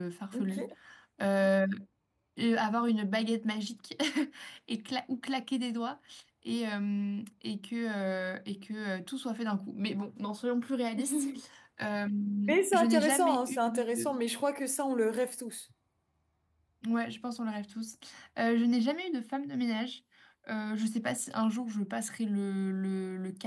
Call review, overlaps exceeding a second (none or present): present